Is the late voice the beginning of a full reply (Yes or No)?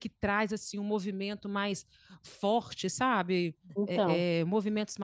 No